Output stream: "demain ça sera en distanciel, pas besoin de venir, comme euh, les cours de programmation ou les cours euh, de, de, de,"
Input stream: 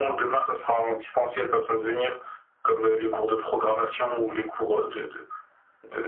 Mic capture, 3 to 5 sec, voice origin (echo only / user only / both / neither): echo only